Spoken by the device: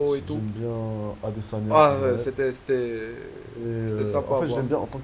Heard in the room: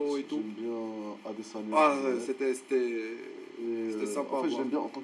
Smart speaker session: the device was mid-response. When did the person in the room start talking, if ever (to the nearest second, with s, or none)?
none